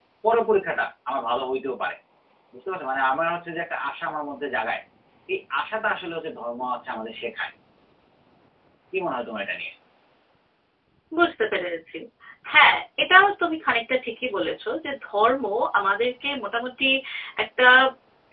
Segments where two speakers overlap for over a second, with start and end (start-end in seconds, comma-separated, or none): none